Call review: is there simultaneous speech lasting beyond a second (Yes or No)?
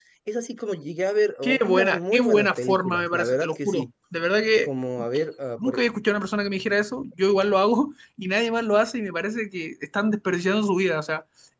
Yes